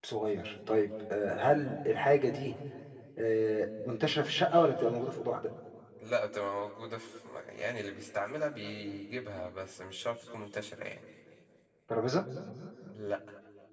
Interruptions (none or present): none